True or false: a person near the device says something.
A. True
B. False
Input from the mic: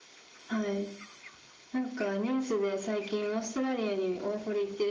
B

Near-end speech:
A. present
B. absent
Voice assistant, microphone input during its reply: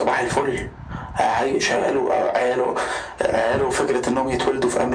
B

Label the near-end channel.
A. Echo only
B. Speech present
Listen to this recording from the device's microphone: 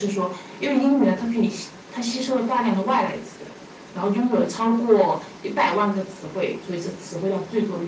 A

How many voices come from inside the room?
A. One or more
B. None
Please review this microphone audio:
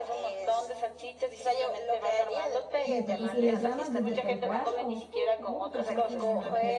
A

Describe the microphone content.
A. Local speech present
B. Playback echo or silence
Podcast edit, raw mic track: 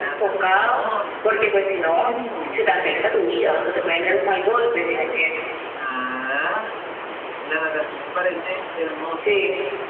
A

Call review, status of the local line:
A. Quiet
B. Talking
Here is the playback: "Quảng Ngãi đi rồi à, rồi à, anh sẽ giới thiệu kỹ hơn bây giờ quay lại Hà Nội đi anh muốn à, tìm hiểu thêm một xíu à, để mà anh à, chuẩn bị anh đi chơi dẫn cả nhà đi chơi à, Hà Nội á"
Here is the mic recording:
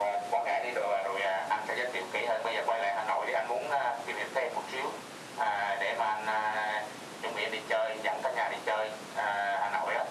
A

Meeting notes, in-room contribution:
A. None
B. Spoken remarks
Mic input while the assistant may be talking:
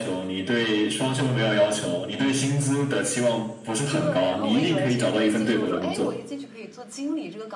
B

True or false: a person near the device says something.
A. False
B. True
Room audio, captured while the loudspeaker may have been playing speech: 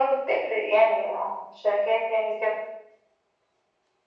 A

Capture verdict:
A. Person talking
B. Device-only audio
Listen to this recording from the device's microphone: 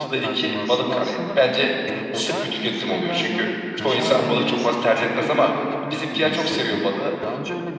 A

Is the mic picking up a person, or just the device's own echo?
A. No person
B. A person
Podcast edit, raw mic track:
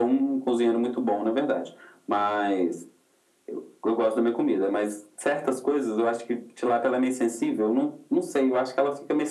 A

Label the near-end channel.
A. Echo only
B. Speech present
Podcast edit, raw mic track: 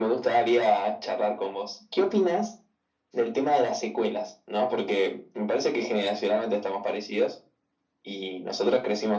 A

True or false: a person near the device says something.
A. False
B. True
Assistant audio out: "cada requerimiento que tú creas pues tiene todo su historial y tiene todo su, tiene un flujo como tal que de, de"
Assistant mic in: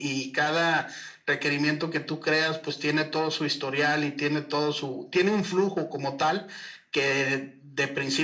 A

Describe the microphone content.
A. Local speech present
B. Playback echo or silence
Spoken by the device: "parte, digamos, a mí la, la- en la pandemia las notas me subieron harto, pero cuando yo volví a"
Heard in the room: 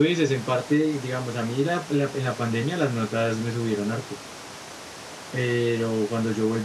B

